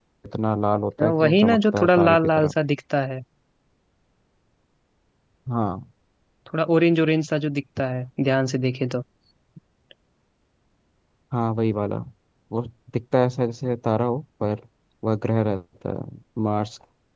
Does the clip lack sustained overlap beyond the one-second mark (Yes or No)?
No